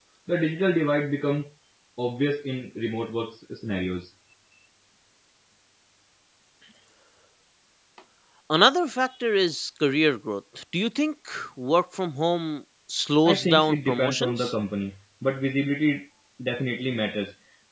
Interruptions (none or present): present